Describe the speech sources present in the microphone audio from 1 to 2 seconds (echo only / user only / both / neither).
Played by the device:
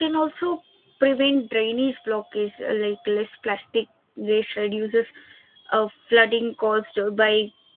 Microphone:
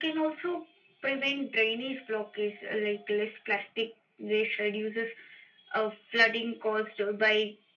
echo only